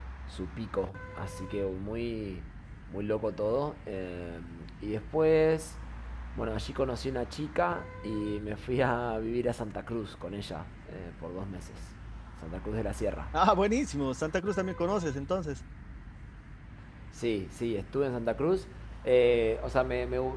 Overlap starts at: none

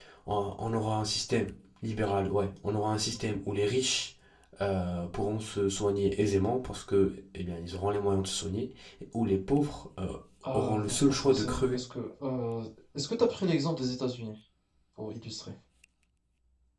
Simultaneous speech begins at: 10.5 s

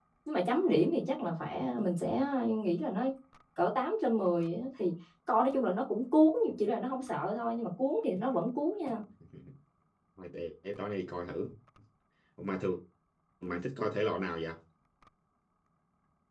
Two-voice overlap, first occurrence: none

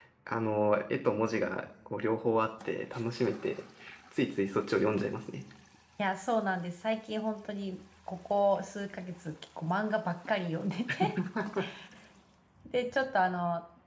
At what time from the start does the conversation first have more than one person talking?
none

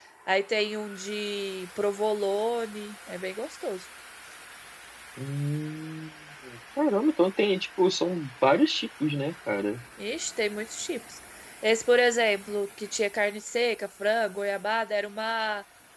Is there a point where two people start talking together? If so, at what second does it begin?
none

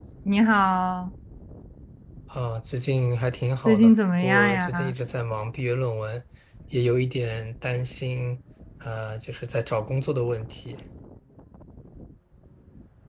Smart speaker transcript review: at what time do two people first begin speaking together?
3.6 s

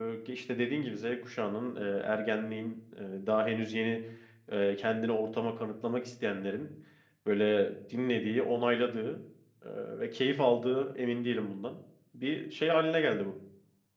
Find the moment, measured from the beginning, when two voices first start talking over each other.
none

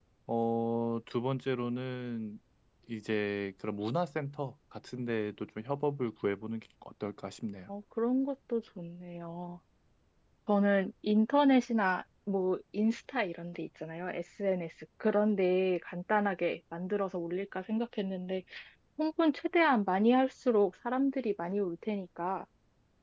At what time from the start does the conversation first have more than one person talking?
none

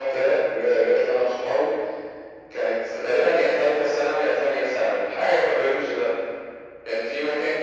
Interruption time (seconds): none

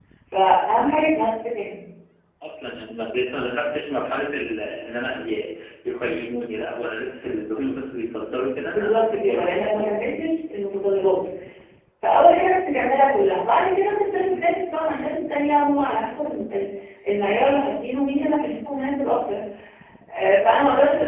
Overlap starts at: 8.7 s

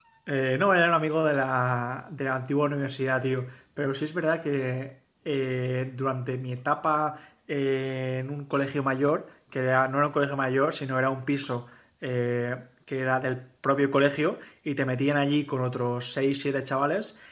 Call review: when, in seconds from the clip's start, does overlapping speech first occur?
none

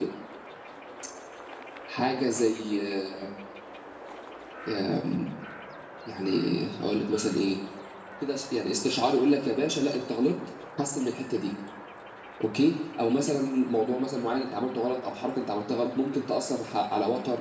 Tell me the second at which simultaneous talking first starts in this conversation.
none

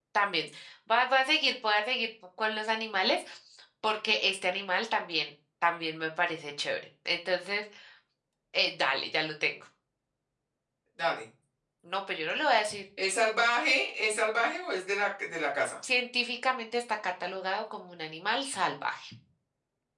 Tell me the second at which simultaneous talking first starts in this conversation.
none

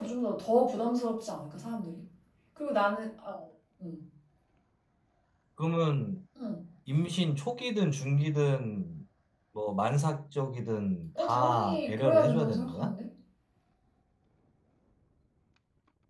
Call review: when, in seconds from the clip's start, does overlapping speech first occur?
11.2 s

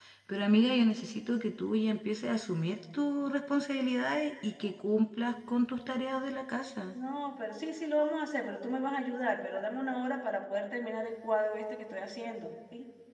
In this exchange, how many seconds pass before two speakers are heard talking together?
none

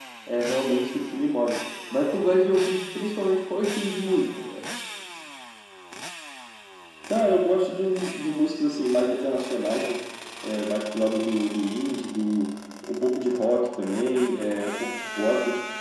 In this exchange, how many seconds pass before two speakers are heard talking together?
none

